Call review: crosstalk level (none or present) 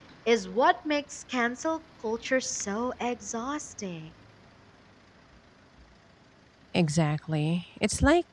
none